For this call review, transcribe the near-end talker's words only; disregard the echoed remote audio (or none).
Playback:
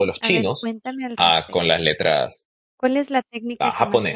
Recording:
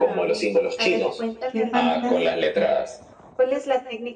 Qué fantástico.